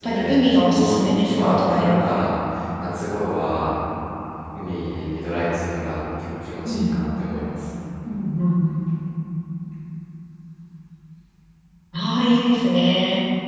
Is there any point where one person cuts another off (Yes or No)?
Yes